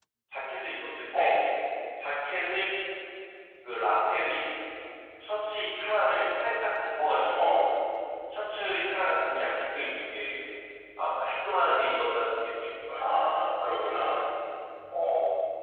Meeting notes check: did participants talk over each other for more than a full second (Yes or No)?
No